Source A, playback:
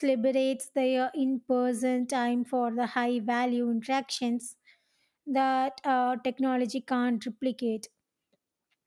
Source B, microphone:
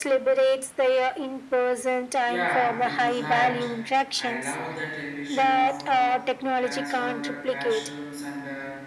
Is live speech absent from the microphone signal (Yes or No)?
No